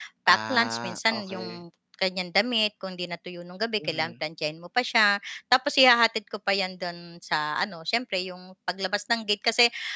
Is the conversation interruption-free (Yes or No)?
No